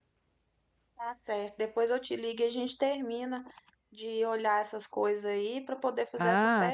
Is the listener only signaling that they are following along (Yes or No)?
No